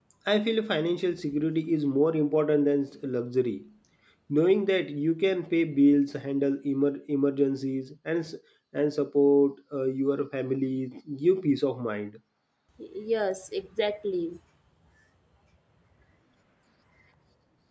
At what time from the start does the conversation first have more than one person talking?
none

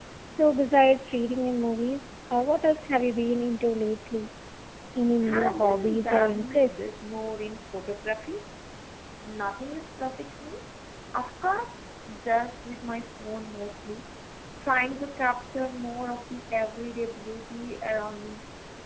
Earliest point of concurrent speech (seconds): 5.3 s

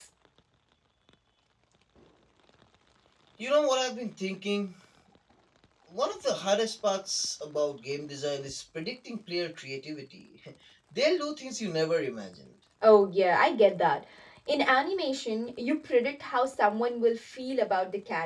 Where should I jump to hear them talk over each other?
none

